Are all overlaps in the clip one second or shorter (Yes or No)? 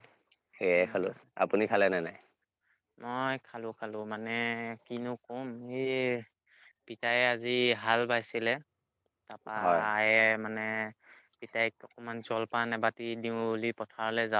Yes